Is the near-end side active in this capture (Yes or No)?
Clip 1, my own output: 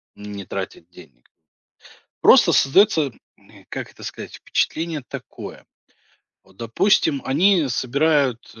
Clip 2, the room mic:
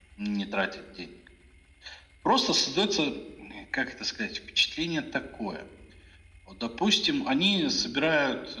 No